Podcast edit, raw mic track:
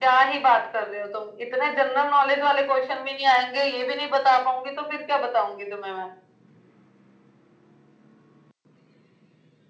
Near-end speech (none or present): none